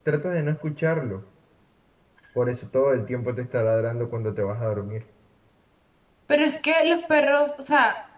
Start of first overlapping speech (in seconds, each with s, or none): none